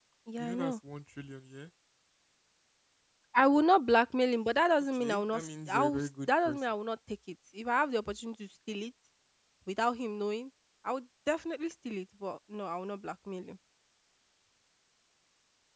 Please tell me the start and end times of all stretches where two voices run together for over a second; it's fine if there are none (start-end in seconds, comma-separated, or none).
4.9-6.6